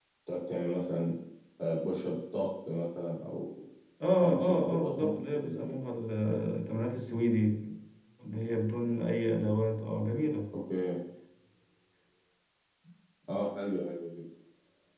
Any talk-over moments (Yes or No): Yes